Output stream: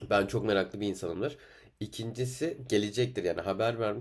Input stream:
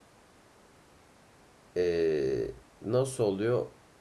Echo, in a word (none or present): none